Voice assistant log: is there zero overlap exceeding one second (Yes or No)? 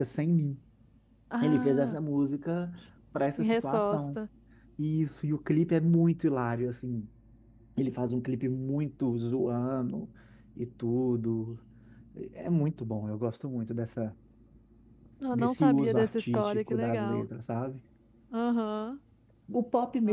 No